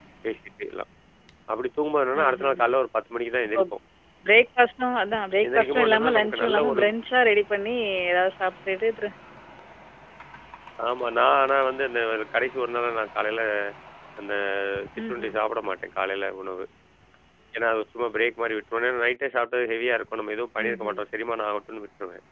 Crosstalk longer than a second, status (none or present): present